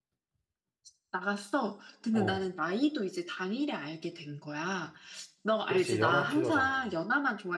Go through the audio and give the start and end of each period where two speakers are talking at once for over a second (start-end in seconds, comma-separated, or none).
5.7-7.0